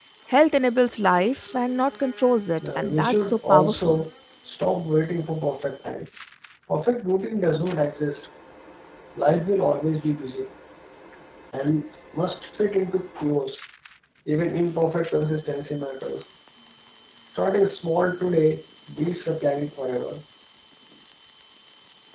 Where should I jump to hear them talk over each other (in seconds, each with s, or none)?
2.6 s